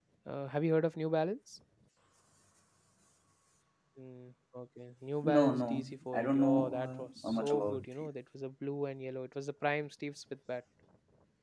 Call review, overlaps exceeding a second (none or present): present